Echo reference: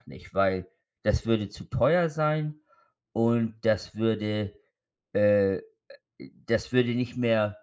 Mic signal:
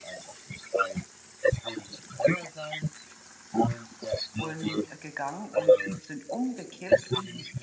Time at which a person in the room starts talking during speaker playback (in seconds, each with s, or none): 4.4 s